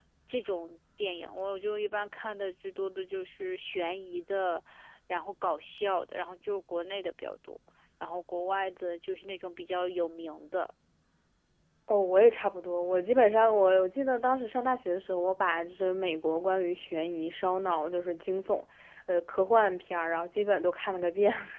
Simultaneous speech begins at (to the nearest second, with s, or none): none